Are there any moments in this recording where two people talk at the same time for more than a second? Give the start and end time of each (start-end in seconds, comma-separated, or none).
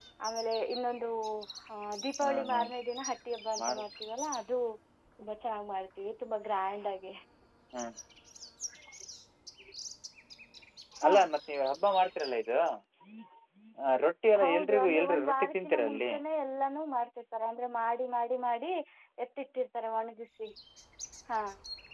14.4-16.1